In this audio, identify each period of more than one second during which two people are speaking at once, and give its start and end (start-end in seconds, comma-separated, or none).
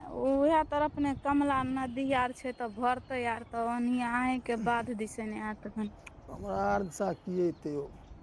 none